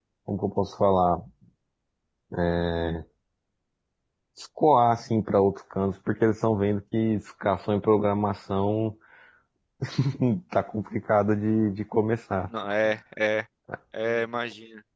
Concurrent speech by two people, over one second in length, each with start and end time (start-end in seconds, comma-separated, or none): none